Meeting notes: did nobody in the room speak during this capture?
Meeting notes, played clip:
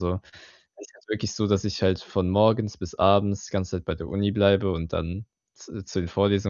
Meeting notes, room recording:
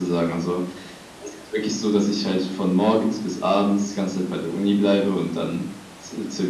Yes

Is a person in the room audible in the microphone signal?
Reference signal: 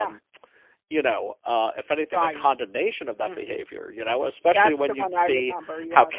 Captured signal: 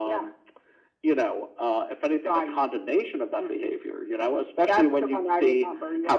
No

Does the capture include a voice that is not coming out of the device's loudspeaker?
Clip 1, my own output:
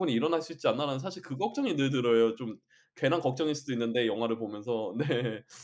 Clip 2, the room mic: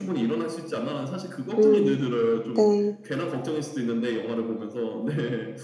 Yes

